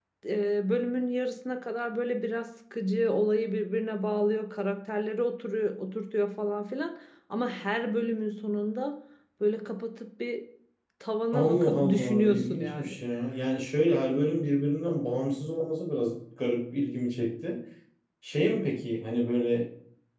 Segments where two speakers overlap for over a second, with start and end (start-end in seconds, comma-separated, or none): 11.3-13.0